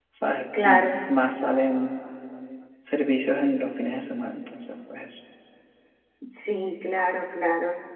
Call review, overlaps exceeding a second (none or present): none